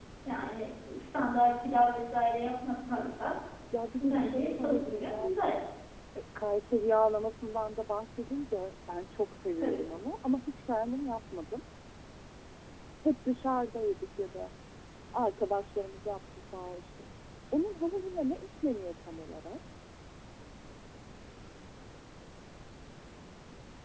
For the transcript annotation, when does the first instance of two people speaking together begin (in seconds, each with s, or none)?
4.0 s